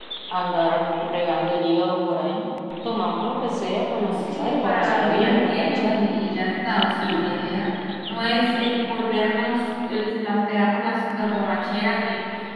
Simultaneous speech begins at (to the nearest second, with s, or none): 4 s